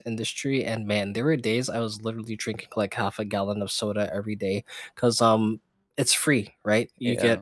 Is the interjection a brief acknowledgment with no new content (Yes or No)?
Yes